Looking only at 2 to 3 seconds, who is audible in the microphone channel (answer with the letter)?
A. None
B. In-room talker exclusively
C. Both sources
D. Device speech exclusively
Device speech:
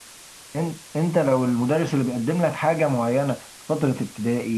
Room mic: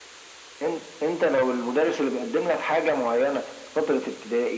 D